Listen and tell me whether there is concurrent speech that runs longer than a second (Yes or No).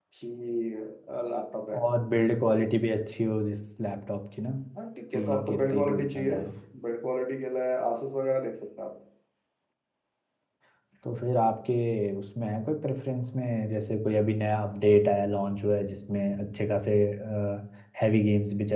Yes